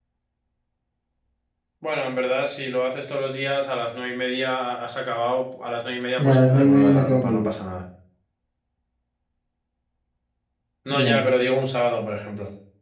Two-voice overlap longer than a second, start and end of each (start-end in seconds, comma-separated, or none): 6.2-7.5